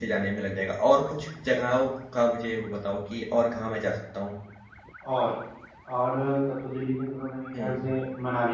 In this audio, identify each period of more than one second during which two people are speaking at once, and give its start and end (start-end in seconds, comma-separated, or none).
none